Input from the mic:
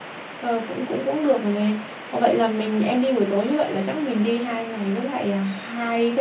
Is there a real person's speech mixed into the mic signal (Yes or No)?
Yes